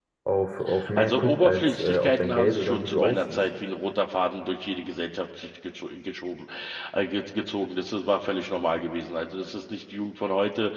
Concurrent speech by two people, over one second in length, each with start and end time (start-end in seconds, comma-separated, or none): 1.0-3.4